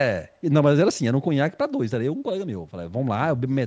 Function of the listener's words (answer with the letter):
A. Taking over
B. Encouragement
B